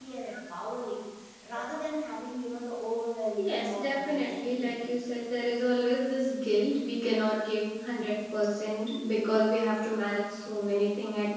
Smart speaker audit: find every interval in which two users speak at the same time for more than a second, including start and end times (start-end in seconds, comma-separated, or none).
3.4-4.8